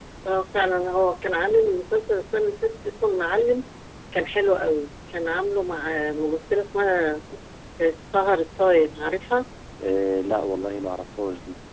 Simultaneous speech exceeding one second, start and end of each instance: none

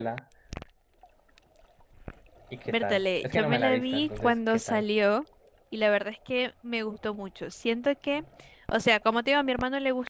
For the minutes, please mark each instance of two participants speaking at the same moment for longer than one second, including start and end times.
2.7-4.8

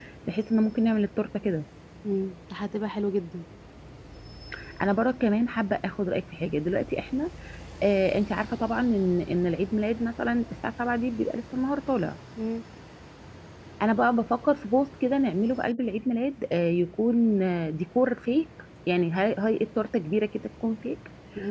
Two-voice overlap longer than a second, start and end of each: none

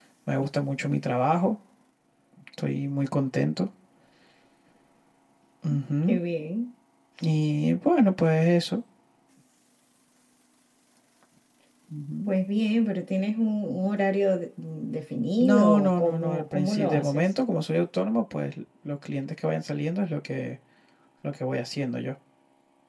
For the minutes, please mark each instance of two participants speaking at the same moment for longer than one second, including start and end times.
15.4-17.2

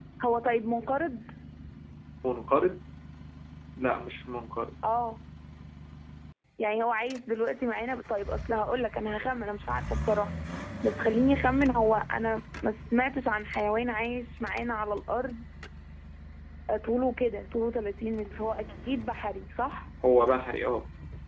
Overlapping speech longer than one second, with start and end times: none

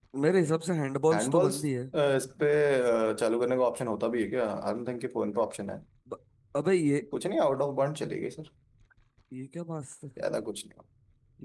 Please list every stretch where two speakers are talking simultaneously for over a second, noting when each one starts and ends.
none

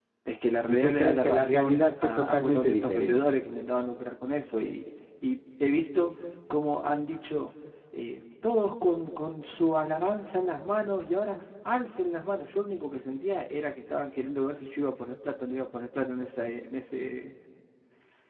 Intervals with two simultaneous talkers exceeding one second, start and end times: 0.7-3.2

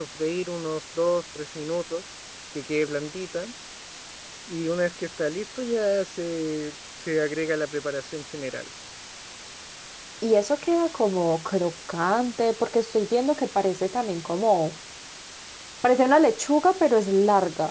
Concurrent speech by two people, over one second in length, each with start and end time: none

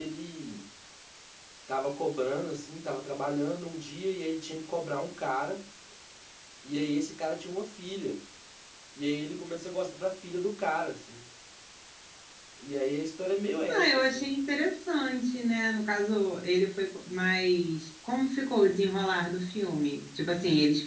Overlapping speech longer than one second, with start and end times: none

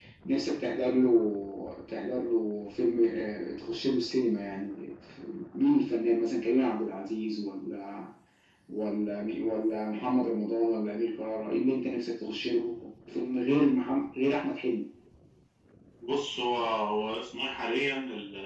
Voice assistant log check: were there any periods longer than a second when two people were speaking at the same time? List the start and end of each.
none

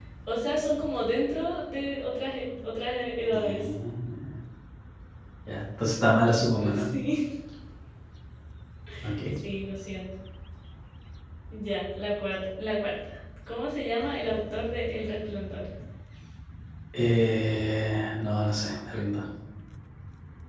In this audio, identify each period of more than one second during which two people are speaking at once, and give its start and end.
none

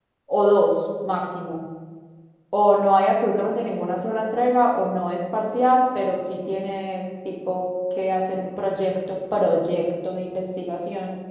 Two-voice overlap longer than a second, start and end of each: none

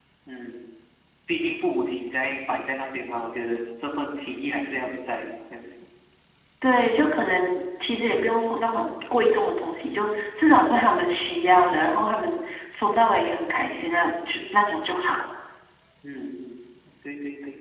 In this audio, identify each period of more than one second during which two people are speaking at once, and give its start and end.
none

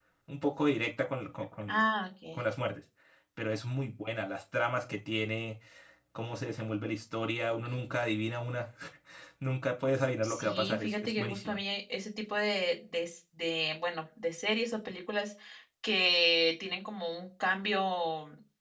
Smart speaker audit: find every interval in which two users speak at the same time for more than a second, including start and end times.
10.2-11.6

